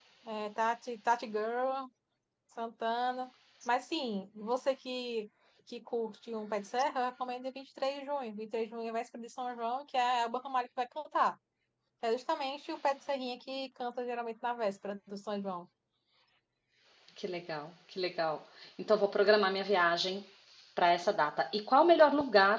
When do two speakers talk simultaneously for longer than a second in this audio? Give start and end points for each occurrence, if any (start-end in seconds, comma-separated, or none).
none